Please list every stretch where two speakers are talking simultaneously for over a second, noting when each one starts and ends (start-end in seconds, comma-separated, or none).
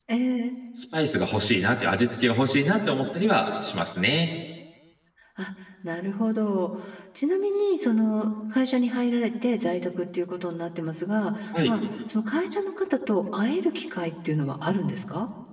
none